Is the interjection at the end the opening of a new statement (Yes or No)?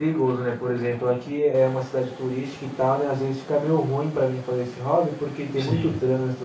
No